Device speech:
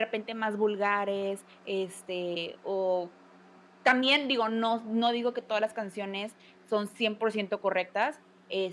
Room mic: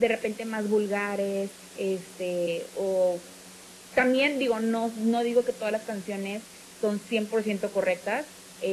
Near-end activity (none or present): none